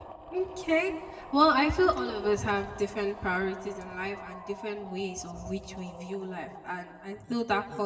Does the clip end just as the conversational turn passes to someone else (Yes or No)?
No